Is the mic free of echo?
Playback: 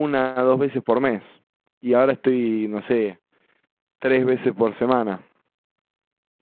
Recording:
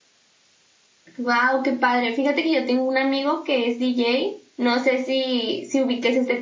Yes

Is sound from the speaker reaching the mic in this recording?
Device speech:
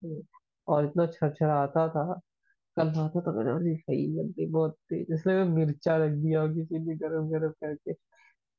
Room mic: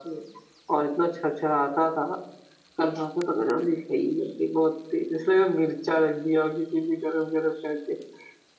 Yes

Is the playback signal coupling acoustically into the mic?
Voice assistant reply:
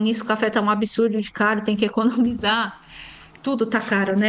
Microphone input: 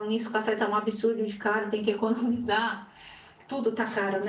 Yes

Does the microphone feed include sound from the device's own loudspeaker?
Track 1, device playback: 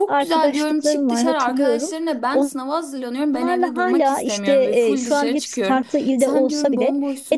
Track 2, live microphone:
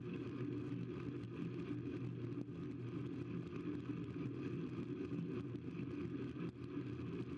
No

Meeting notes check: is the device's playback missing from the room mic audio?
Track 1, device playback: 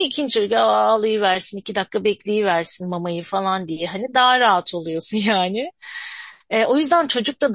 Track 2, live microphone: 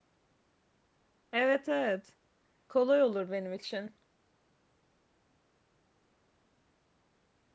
Yes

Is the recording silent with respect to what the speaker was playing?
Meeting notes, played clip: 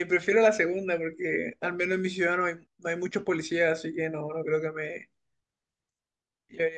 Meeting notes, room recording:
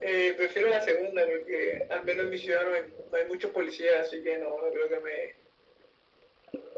No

